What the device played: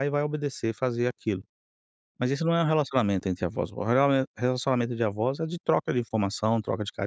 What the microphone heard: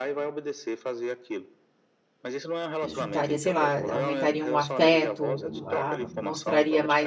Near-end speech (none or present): present